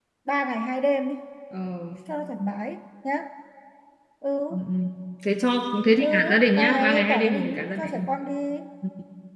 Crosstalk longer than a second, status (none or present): present